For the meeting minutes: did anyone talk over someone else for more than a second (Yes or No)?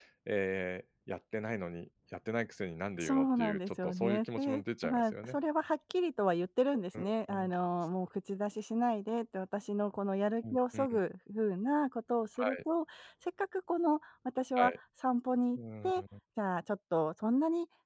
Yes